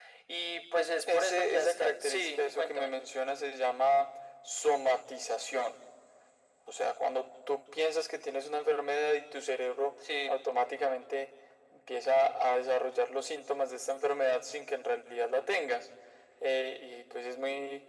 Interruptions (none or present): present